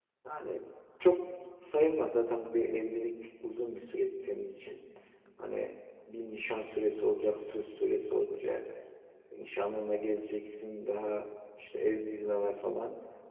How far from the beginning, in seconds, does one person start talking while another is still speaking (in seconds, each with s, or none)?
none